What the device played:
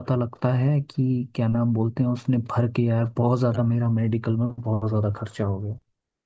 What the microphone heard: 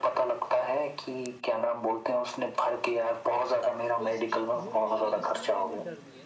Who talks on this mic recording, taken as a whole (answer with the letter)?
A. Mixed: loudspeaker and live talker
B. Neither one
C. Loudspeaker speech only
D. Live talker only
A